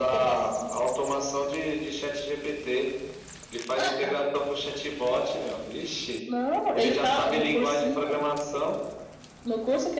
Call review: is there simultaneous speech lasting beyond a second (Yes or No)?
Yes